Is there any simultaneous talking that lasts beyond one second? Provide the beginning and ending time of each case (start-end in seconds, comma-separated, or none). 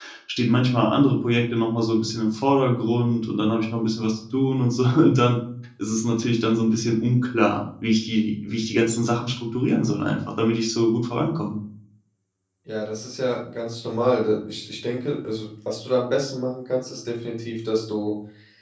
none